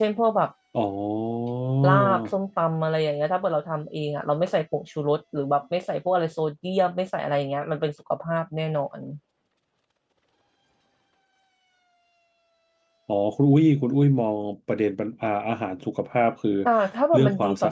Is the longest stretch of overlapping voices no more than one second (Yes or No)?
Yes